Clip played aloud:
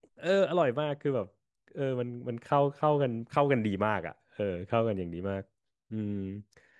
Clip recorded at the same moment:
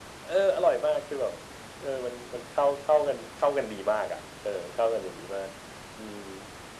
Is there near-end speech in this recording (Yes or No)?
No